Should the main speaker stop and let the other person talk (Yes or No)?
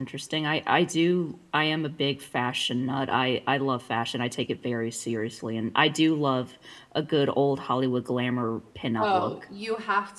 Yes